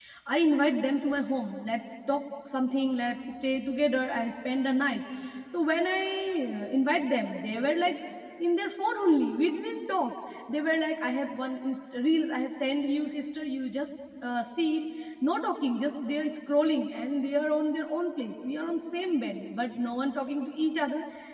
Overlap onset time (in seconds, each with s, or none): none